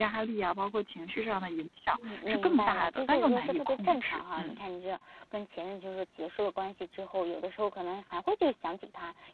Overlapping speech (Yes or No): Yes